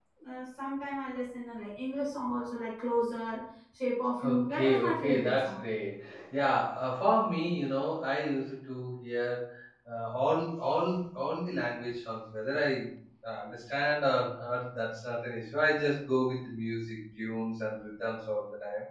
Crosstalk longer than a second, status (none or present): present